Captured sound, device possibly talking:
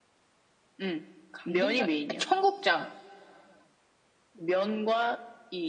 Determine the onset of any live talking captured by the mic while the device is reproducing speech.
1.3 s

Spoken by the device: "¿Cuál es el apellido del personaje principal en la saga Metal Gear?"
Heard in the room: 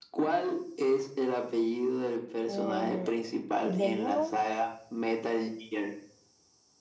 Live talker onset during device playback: 2.5 s

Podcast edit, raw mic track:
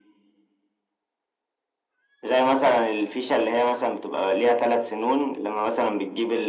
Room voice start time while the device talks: none

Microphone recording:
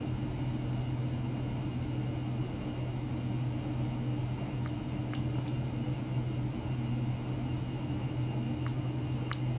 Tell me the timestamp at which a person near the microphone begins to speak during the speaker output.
none

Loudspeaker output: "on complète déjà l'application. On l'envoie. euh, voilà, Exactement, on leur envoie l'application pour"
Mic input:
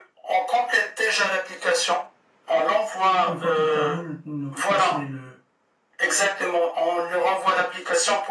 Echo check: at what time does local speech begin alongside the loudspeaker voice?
3.2 s

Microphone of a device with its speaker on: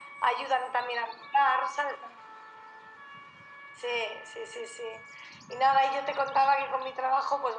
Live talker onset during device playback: none

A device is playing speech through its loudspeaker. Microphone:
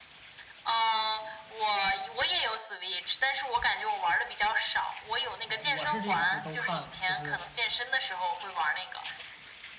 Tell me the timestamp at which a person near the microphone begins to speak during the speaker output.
5.4 s

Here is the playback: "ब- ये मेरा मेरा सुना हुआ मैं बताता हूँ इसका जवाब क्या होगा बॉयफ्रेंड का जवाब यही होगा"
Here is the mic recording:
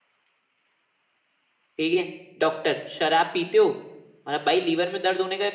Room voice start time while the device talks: 1.8 s

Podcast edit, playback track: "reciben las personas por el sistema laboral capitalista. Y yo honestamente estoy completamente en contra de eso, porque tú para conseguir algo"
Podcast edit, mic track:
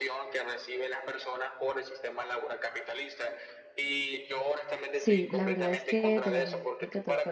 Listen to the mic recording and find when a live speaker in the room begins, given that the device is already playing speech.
4.9 s

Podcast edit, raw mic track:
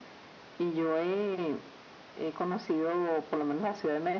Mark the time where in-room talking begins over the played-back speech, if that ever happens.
none

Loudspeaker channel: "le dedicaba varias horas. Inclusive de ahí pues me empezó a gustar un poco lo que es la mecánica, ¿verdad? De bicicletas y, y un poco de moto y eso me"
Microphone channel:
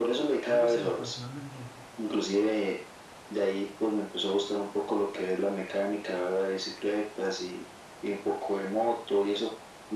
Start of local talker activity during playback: 0.5 s

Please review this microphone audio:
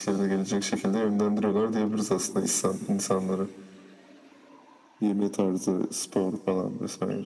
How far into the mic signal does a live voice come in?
none

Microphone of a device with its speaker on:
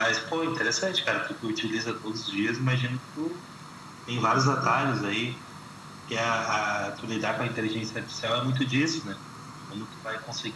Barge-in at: 4.3 s

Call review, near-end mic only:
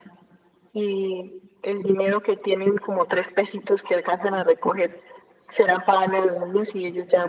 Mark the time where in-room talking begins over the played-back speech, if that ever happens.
none

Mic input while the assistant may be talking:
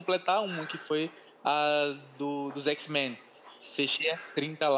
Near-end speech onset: none

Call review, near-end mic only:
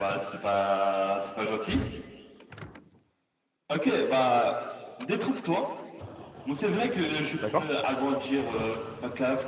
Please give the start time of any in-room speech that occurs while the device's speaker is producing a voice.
7.4 s

